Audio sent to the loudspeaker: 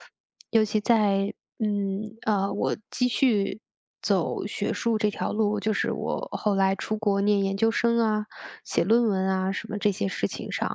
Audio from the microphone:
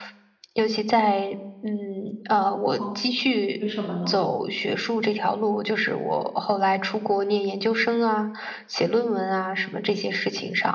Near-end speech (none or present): present